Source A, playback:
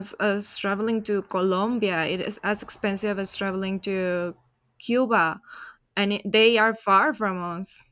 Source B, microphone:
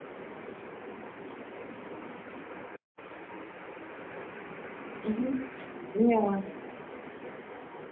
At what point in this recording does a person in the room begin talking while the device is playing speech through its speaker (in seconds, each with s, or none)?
5.0 s